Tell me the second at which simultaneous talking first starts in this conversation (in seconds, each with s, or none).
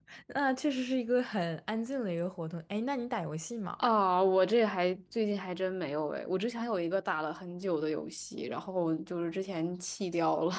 none